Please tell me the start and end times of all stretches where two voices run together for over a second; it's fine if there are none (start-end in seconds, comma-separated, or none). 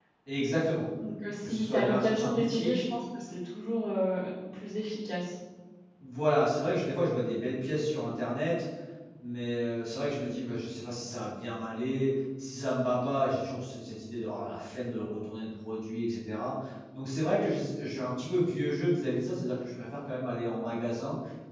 1.4-2.8